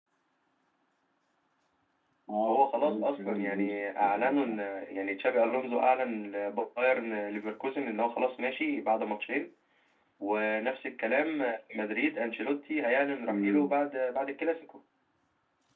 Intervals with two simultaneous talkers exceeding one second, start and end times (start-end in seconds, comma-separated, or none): 2.5-4.4